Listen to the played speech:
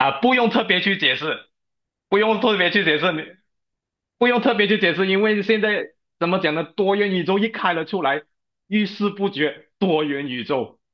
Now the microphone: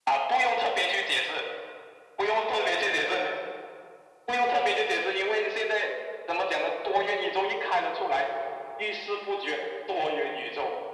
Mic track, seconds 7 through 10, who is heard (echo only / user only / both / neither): echo only